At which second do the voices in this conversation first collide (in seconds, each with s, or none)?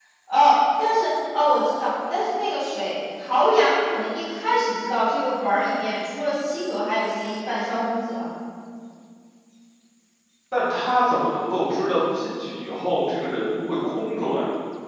none